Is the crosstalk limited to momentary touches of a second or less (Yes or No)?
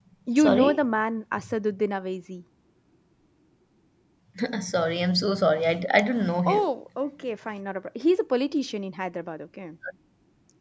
Yes